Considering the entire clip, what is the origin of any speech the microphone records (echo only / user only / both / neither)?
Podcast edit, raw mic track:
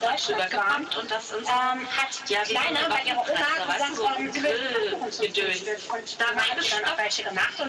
echo only